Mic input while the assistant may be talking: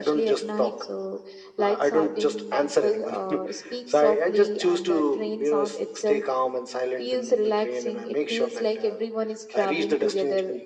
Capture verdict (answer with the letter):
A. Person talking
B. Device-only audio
B